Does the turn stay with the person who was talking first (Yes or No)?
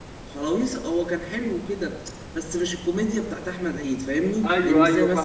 No